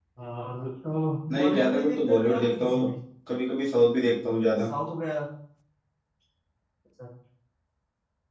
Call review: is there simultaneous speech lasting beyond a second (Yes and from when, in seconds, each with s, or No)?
Yes, from 1.3 s